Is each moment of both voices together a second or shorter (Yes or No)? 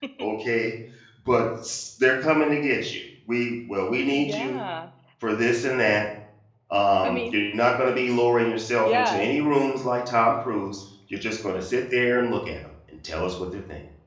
Yes